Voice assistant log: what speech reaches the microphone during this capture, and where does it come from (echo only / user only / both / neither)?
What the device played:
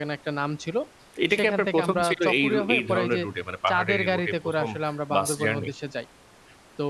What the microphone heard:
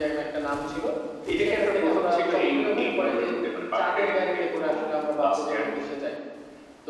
echo only